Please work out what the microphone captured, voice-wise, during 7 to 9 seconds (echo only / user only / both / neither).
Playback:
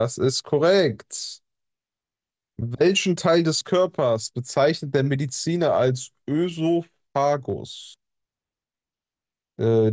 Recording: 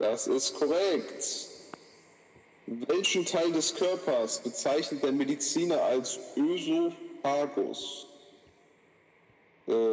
echo only